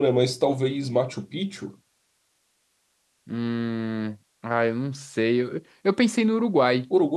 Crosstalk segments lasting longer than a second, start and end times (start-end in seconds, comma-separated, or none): none